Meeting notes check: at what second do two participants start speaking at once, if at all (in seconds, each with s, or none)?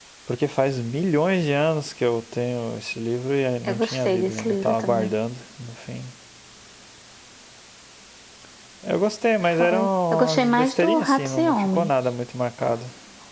3.7 s